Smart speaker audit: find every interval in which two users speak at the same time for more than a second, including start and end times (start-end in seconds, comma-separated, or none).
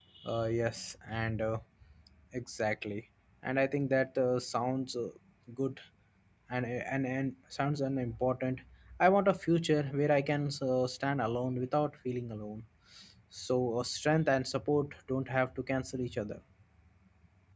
none